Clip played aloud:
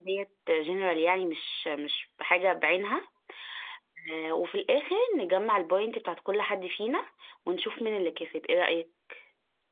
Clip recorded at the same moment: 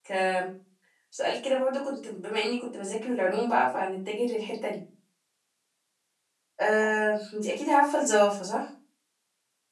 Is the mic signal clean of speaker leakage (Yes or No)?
Yes